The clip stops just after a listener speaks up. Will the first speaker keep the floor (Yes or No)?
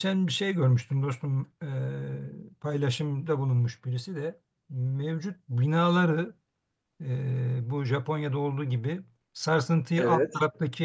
Yes